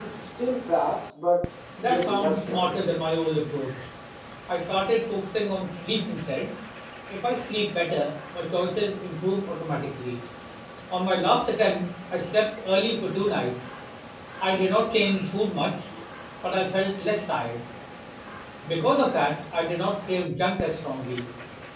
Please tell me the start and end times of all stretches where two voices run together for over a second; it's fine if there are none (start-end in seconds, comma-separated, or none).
1.8-3.0